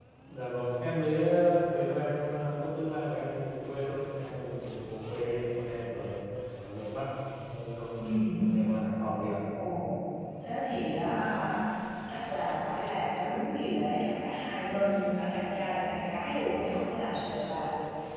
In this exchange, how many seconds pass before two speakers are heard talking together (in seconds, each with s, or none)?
none